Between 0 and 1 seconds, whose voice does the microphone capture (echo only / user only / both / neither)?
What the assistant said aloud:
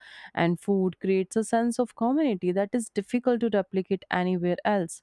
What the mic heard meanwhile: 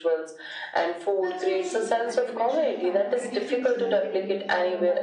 echo only